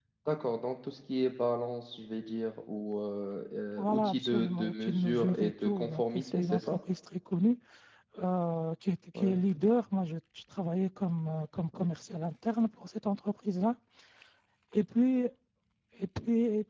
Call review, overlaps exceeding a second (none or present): present